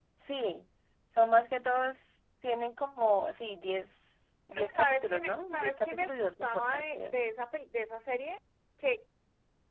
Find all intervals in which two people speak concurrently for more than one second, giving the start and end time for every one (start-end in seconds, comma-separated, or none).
4.5-7.2